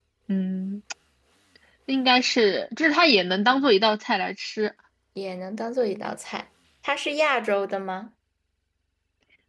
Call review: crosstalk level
none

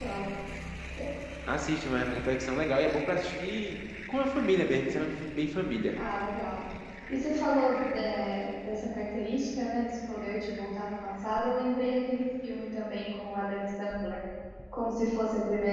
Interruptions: none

